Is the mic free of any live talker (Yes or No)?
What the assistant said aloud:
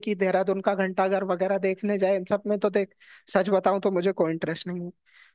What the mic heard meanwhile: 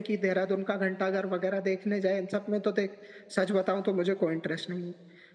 Yes